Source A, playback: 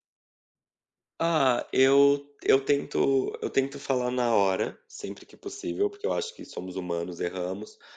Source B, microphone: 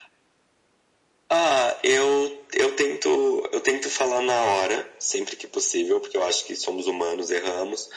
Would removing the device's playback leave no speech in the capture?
Yes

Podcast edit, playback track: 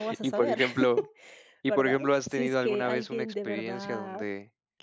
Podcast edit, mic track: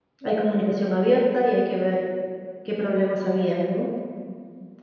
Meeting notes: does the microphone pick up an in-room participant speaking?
Yes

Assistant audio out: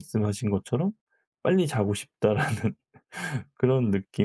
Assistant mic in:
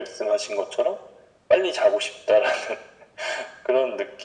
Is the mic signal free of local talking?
Yes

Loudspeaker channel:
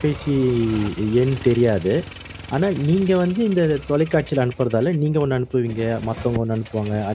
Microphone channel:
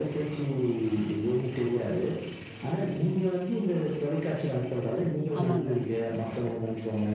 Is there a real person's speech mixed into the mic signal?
Yes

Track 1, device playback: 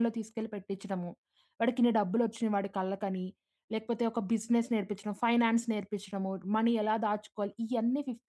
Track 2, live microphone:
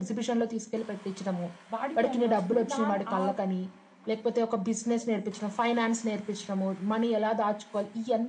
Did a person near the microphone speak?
Yes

